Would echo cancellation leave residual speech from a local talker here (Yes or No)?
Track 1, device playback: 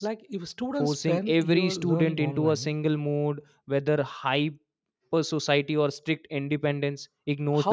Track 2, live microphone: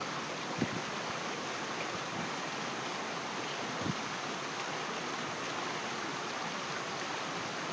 No